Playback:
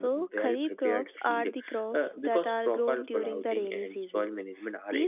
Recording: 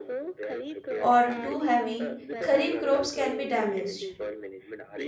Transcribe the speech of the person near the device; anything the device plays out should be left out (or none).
or too heavy, kharif crops can be damaged.